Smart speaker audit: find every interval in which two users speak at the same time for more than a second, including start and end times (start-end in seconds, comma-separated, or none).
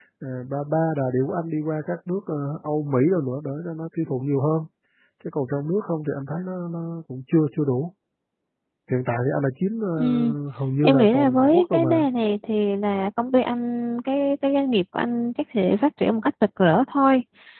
10.8-12.1